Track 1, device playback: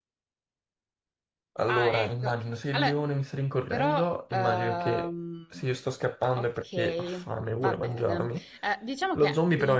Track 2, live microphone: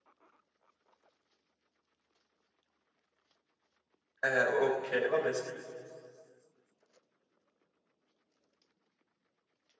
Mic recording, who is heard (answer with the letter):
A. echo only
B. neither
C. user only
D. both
C